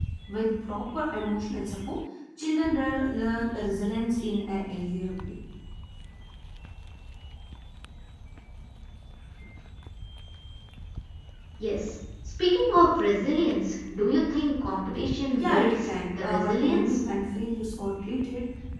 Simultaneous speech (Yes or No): Yes